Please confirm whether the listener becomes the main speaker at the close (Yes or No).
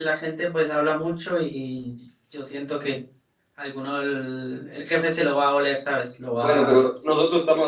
Yes